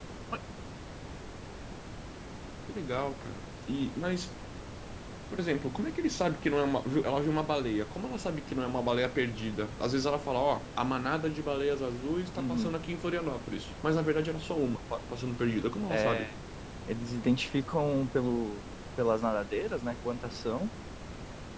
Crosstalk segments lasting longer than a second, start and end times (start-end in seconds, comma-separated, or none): none